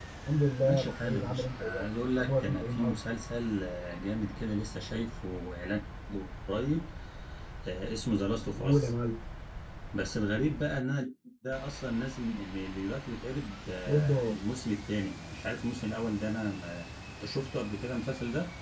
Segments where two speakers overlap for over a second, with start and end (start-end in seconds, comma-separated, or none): 0.6-3.0